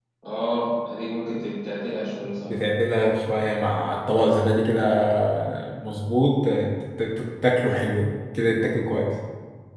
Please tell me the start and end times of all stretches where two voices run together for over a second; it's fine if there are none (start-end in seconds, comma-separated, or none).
none